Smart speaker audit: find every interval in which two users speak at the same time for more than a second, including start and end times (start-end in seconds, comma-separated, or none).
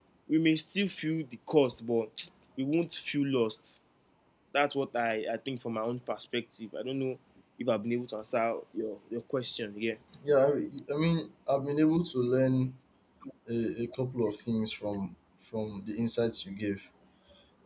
none